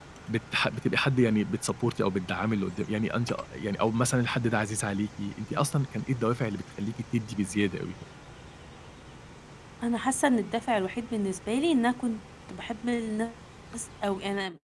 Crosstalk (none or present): none